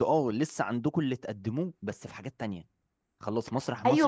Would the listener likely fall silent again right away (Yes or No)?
No